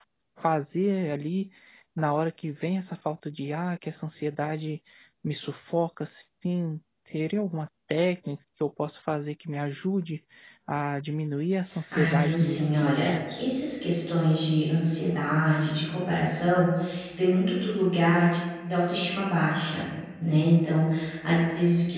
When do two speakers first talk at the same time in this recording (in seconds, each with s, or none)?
11.9 s